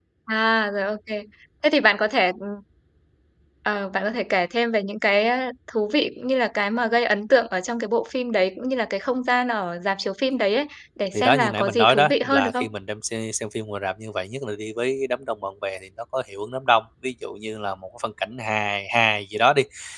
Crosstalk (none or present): present